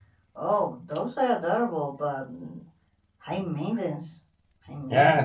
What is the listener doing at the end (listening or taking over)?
taking over